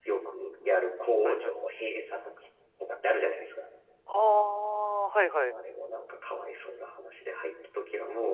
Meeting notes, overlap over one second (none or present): none